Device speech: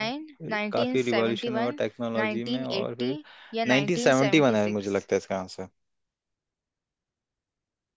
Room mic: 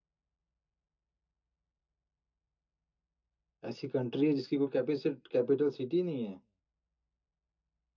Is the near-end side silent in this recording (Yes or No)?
No